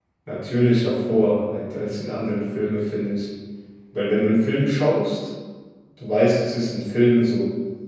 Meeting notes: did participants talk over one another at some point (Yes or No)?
No